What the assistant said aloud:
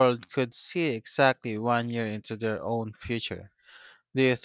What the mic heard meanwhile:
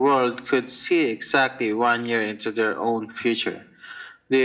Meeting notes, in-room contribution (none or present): none